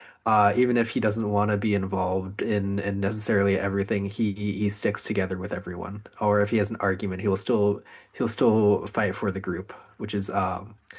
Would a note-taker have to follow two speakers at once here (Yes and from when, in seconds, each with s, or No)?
No